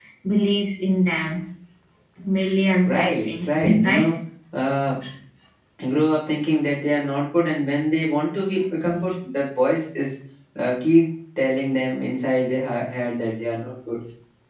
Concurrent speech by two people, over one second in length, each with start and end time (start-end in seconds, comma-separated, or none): 2.8-4.1